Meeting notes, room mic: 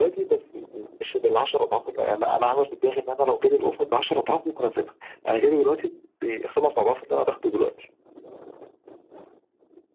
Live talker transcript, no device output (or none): none